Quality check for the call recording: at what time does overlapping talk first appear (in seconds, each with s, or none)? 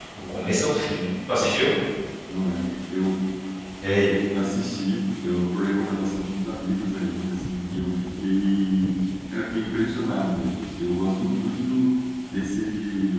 none